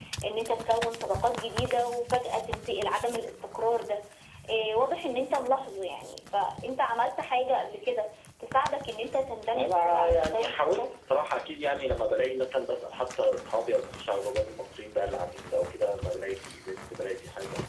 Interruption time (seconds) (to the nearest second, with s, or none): 10 s